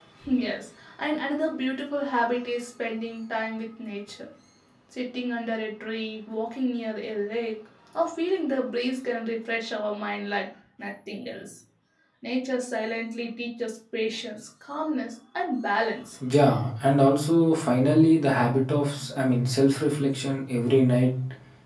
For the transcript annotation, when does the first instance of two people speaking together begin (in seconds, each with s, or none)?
none